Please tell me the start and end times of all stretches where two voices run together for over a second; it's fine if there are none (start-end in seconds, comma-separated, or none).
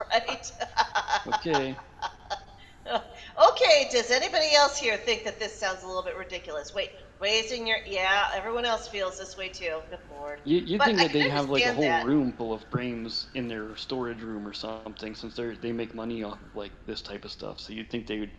10.8-12.0